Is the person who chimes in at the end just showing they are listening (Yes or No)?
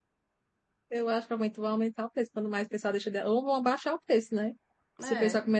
Yes